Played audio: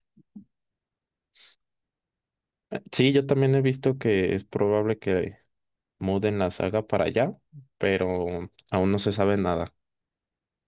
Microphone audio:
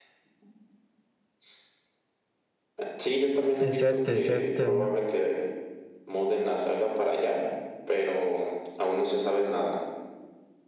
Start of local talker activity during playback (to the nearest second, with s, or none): 4 s